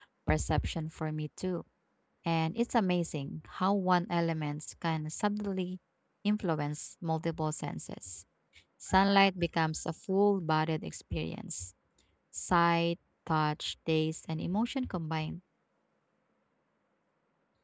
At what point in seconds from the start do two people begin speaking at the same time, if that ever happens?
none

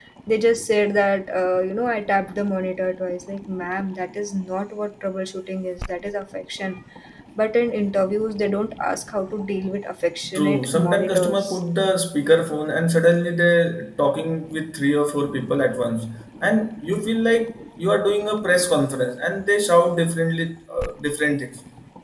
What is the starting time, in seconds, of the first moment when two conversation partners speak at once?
10.2 s

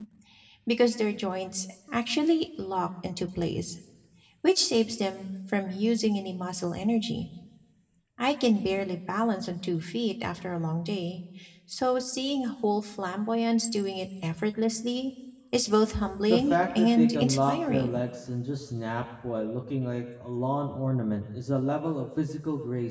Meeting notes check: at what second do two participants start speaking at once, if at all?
16.3 s

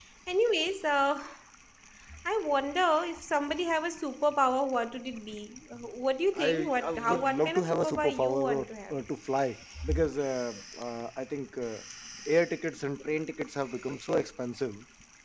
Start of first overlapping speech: 6.3 s

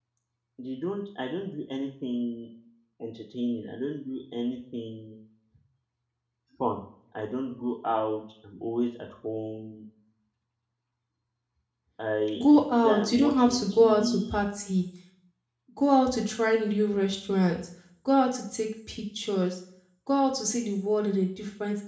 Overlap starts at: 12.4 s

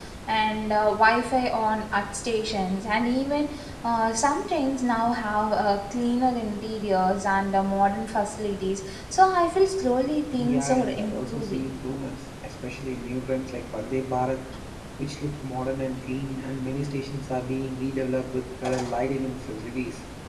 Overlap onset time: 10.3 s

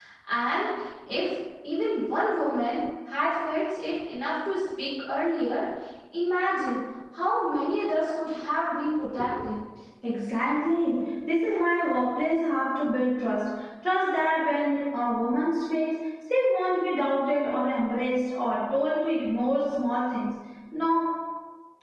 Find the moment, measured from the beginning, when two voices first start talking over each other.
none

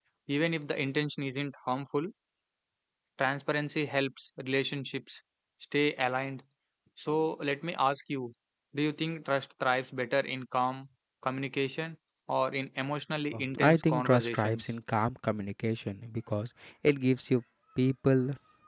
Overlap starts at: 13.3 s

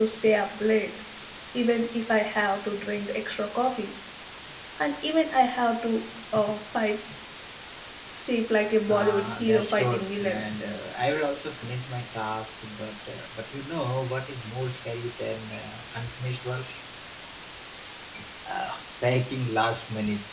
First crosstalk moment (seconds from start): 8.9 s

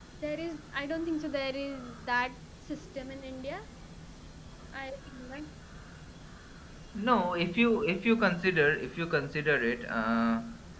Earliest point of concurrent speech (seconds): none

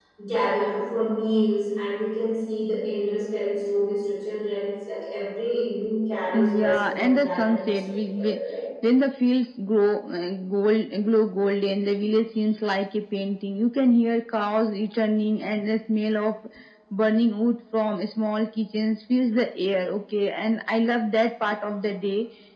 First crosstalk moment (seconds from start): 6.3 s

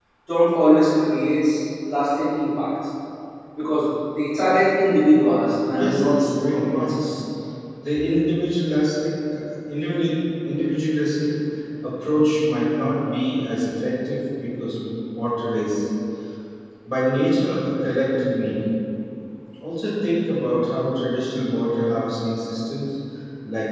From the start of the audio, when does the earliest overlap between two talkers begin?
5.7 s

